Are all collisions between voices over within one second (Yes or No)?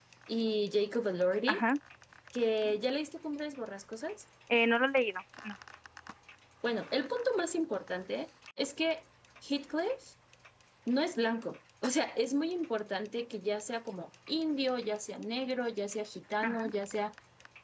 Yes